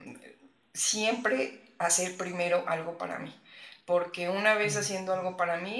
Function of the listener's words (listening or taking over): listening